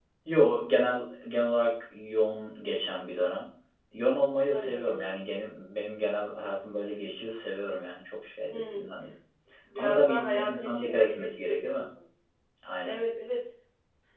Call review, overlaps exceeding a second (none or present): present